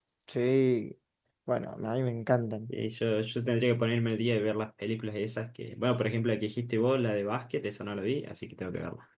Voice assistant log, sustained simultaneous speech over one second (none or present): none